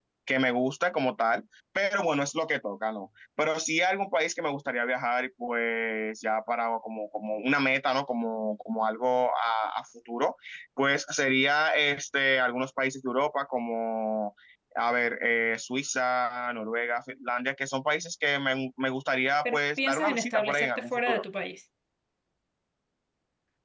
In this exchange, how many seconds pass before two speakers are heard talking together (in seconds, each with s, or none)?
19.4 s